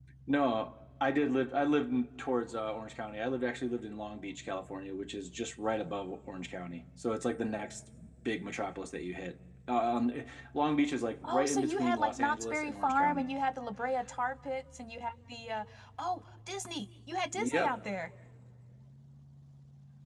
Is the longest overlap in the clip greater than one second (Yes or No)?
Yes